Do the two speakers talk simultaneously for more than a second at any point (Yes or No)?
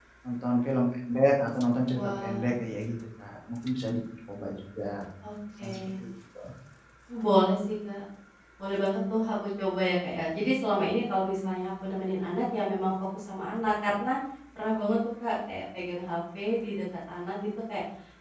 No